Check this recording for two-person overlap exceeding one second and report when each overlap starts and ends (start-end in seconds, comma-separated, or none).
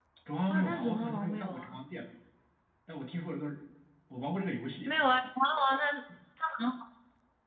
0.5-1.8